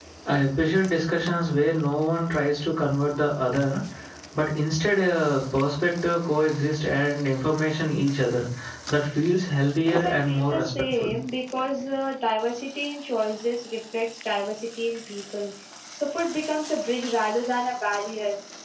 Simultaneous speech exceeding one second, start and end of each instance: 9.8-11.1

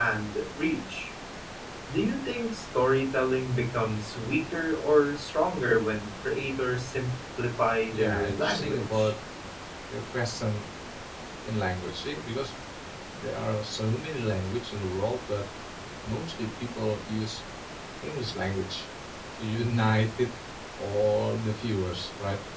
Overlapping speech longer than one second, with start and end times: 7.9-9.1

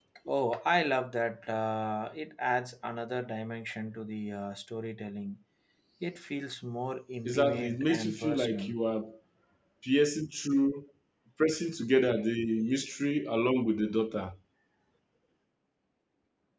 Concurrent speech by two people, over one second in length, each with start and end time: 7.2-8.8

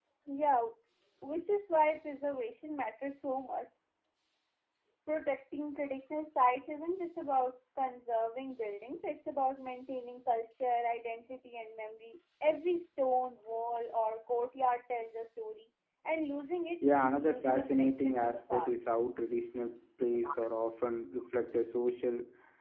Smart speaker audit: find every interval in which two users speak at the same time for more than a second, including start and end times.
16.8-18.7

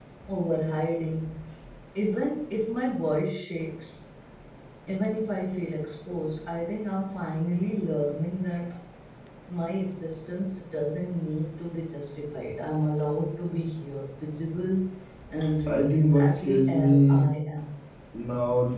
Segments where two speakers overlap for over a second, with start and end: 15.6-17.3

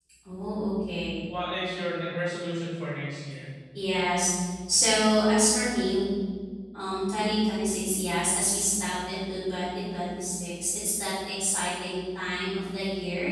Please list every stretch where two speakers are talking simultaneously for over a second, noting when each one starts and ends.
none

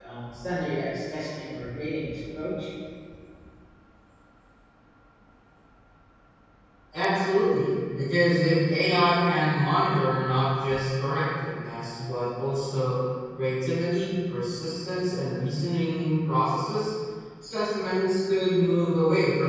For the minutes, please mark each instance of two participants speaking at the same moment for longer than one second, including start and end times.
none

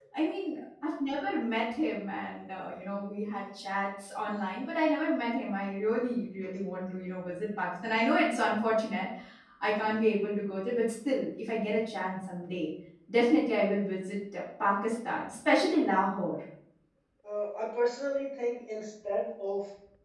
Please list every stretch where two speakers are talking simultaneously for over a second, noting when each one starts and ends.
none

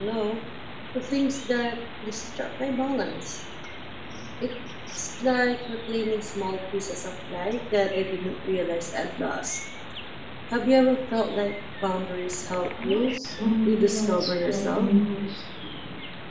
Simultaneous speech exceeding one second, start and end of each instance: 13.7-14.9

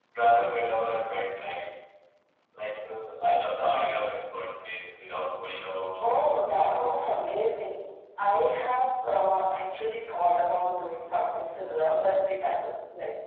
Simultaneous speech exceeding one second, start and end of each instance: 6.0-7.2

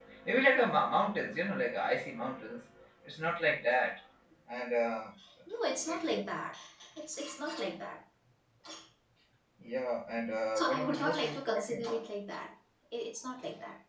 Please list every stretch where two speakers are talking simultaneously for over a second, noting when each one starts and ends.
10.5-11.8

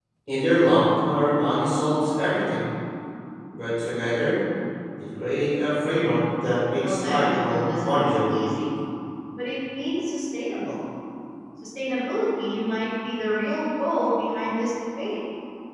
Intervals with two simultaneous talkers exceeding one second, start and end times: 6.8-8.4

